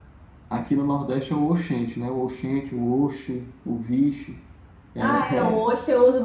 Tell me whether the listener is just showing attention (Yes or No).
No